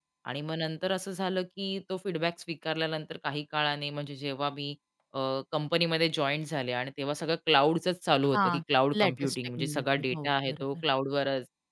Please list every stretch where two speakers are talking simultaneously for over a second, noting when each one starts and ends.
9.0-10.8

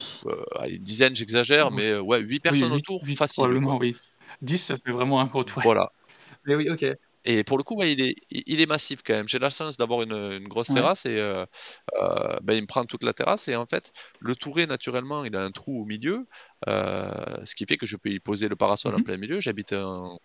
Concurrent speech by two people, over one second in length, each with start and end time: 2.5-3.7

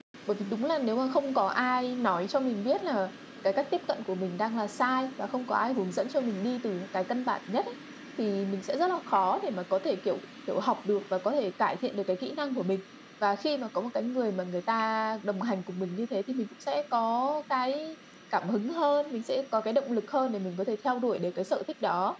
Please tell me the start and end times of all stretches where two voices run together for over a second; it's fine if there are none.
none

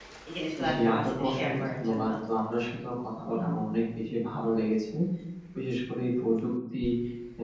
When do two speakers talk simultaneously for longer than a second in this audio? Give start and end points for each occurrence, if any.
0.7-2.1

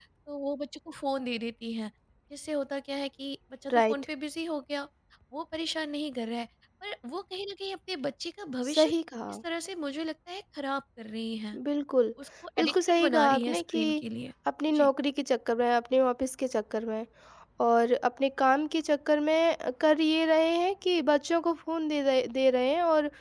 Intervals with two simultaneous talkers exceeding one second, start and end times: 12.6-13.8

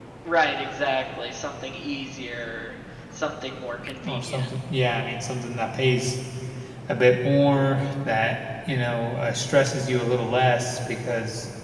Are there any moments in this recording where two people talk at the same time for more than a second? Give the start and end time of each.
none

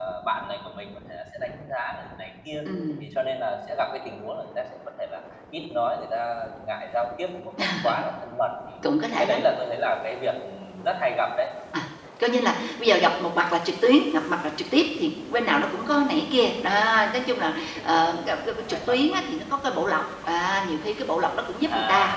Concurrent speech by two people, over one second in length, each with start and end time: 17.8-19.2

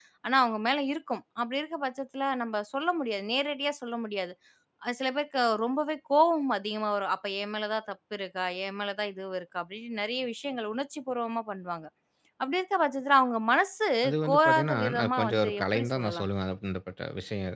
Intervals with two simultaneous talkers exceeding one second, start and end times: 14.3-16.3

